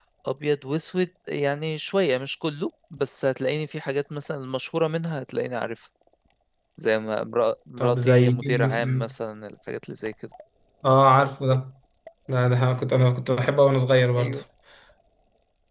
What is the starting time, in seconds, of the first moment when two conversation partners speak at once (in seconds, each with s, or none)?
7.8 s